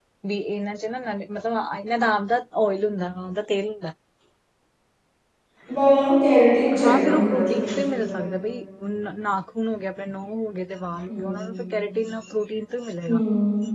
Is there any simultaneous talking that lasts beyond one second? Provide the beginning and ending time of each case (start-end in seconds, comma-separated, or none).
6.8-8.2